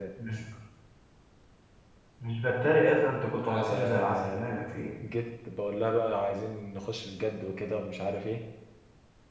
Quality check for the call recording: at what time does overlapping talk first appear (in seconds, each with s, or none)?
3.4 s